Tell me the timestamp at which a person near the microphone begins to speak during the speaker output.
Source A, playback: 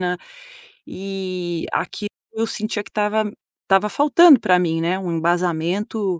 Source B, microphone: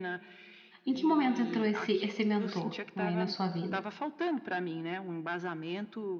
1 s

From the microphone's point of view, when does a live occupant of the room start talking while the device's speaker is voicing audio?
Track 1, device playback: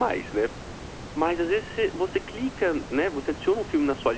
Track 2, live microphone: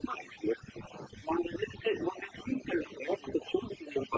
none

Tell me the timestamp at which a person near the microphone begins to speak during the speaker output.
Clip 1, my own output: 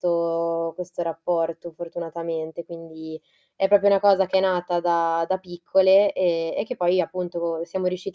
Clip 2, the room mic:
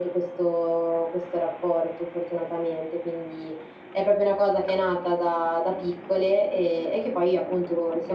none

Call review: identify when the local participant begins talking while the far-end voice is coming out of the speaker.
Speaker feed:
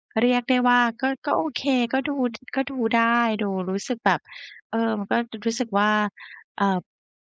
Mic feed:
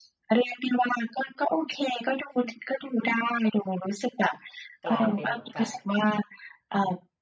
5 s

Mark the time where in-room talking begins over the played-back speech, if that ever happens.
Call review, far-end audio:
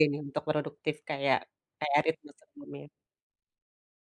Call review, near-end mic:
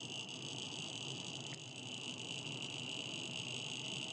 none

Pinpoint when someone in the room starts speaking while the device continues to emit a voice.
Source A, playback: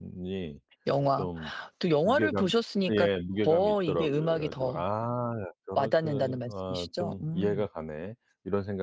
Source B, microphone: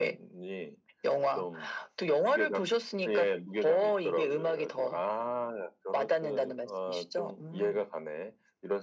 none

